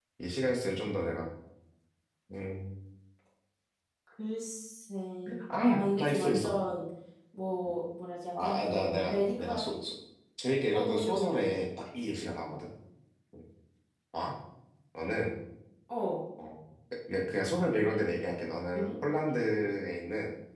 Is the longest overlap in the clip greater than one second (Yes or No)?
Yes